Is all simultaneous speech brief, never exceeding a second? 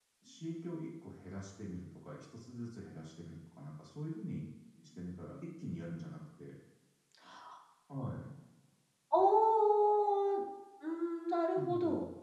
Yes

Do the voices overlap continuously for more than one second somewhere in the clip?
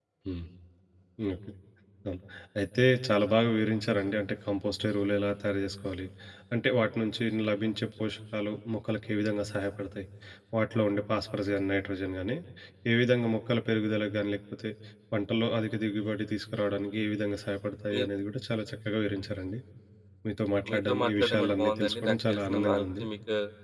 Yes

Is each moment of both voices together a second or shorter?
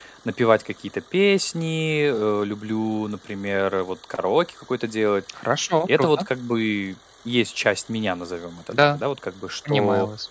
Yes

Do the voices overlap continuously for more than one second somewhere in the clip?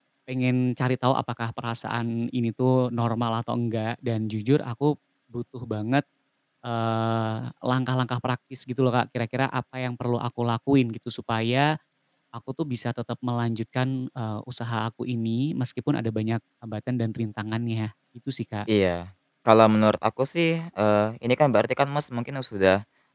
No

